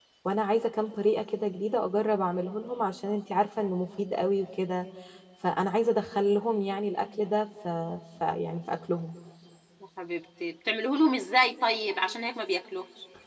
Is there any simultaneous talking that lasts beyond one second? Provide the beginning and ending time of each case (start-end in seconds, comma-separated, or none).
none